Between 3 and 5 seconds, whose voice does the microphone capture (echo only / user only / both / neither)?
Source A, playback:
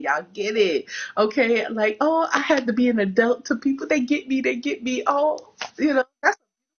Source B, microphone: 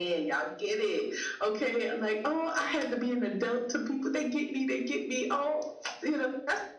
echo only